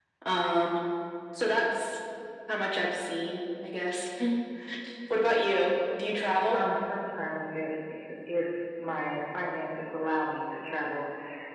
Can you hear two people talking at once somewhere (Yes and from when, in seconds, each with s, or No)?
No